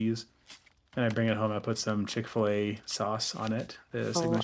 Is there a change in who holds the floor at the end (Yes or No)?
Yes